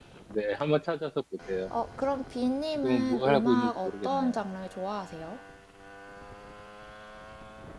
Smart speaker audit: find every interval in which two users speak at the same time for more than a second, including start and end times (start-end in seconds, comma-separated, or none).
2.8-4.3